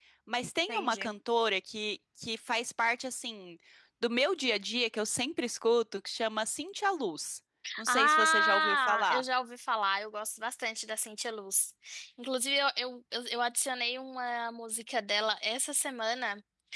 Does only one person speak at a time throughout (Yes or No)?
No